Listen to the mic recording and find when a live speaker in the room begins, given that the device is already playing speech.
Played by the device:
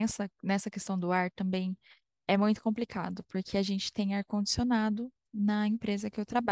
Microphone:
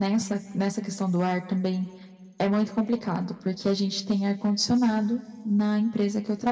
none

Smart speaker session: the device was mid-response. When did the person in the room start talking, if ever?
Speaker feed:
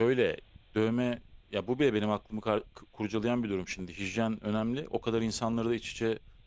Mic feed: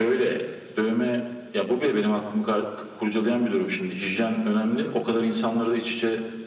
none

